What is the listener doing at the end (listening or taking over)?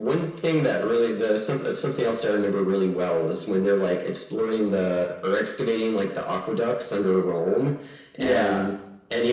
listening